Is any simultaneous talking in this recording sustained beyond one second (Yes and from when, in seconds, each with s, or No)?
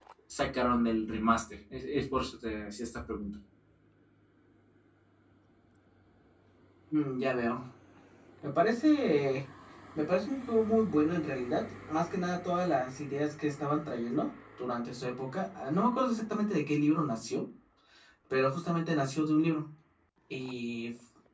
No